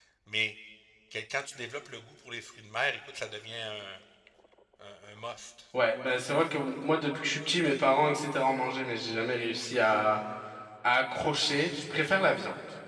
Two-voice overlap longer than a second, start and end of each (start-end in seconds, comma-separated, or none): none